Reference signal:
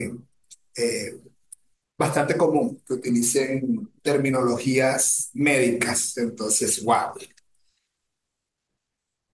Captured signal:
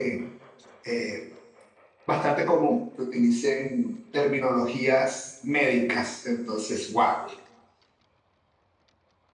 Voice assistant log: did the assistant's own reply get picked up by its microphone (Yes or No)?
Yes